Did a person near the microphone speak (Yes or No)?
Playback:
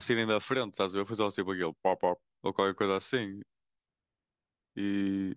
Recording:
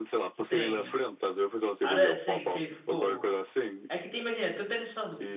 Yes